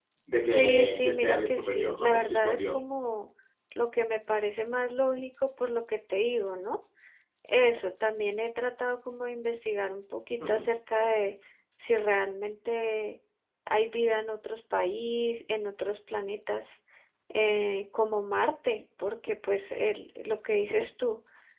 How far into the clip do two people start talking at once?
1 s

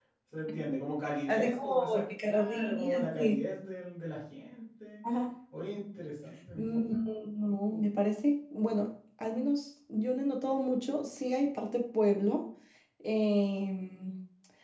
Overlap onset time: 1 s

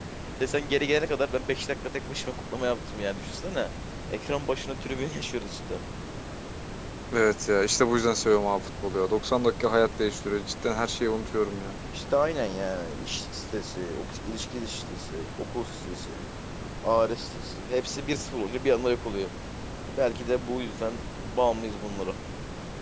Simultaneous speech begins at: none

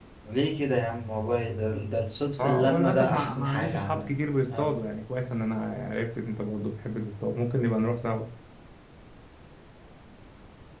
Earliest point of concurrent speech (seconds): 2 s

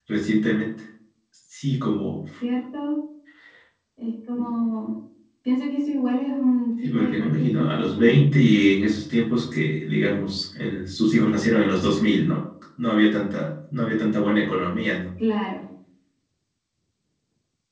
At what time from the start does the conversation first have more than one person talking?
7 s

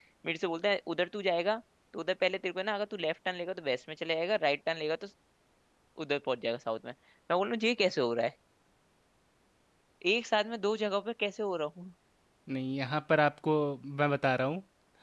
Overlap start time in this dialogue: none

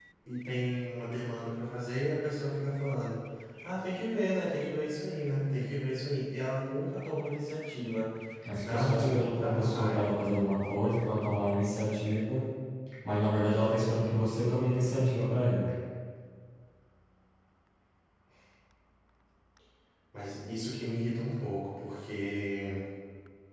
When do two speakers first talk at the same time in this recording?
9 s

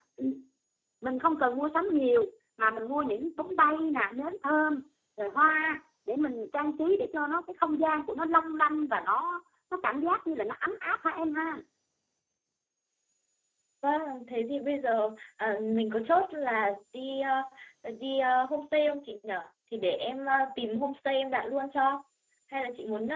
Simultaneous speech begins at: none

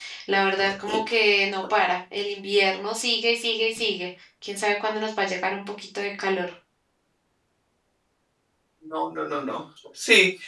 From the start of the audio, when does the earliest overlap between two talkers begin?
none

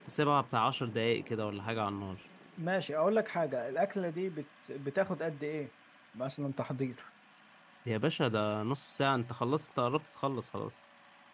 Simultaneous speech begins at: none

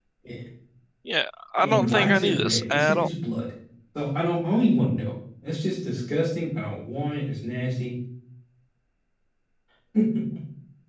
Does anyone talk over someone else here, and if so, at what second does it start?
2 s

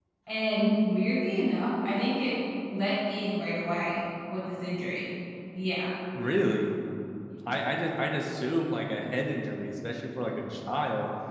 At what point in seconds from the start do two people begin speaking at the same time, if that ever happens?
none

